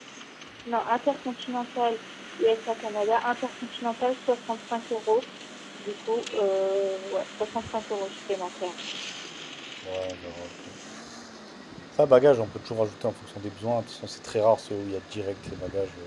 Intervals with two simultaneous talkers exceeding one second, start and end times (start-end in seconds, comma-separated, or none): none